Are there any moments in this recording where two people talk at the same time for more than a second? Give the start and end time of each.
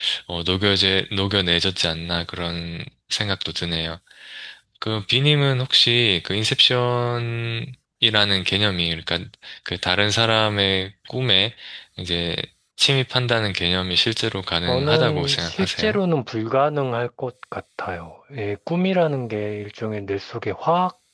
14.7-16.0

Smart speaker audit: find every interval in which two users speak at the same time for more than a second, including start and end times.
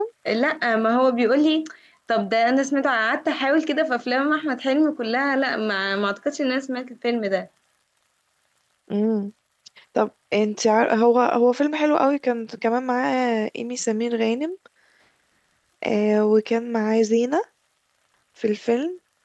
none

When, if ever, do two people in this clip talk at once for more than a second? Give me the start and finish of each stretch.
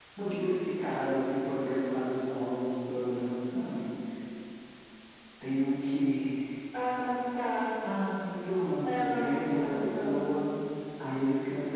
8.9-10.4

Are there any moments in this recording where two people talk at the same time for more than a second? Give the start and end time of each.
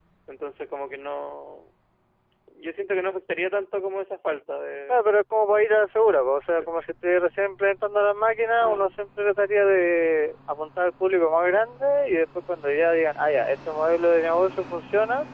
none

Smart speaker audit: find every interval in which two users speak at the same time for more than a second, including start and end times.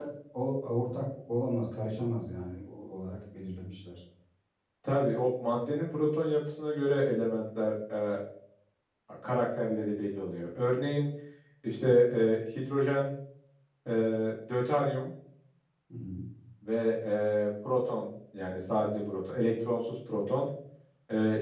none

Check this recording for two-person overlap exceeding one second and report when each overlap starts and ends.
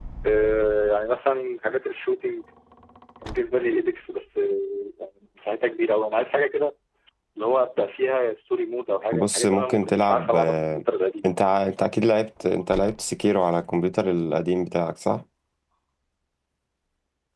9.1-10.8

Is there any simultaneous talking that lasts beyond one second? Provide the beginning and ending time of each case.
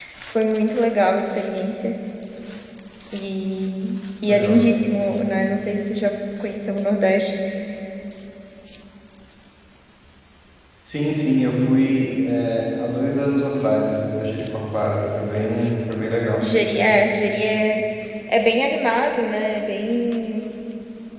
none

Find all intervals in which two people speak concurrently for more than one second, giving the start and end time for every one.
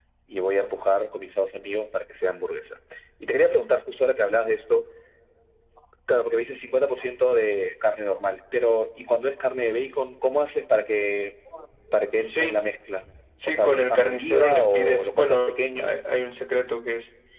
13.4-15.9

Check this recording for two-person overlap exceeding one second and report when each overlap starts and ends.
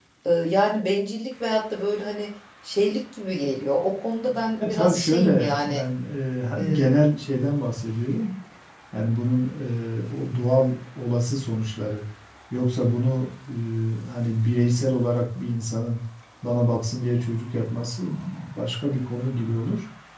4.3-5.8

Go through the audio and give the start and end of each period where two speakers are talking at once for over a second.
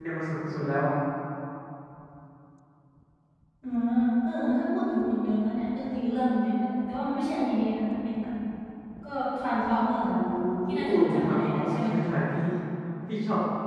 10.8-12.0

